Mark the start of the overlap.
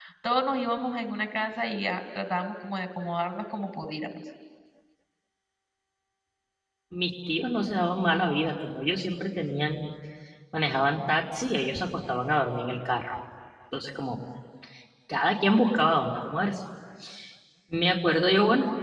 none

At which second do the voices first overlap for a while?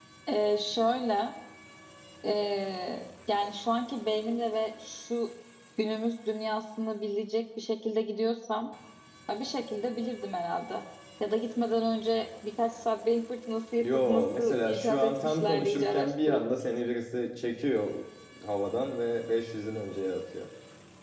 13.8 s

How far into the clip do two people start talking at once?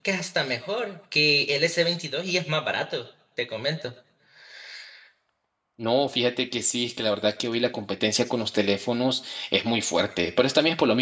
none

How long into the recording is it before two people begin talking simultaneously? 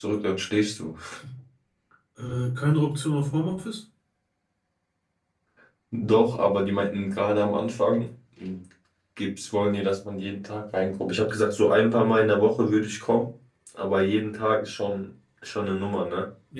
none

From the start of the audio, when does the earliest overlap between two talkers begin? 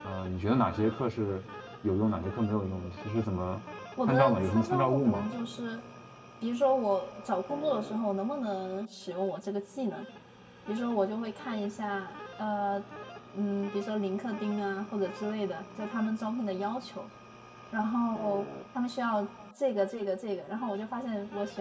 4.1 s

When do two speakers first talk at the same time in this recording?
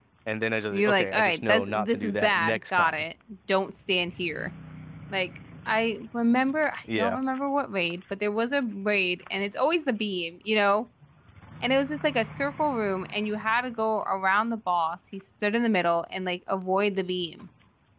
0.7 s

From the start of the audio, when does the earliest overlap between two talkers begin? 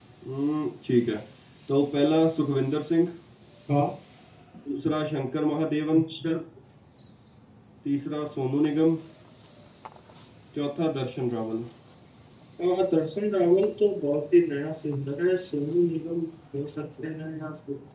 none

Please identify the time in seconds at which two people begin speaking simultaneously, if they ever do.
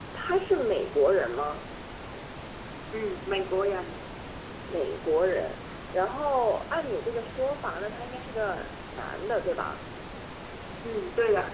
none

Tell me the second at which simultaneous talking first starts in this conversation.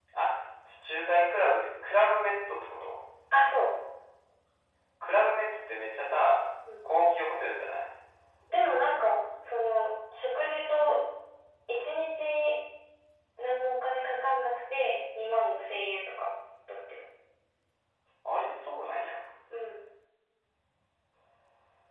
none

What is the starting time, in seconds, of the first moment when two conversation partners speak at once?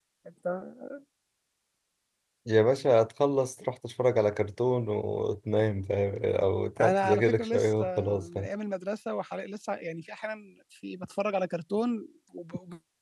6.8 s

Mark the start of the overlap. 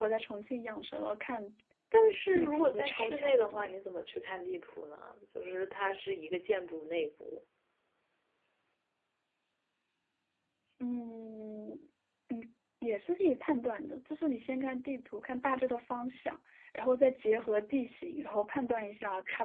2.3 s

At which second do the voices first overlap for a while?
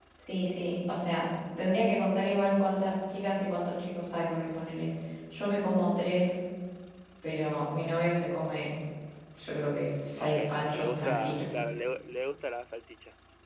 10.2 s

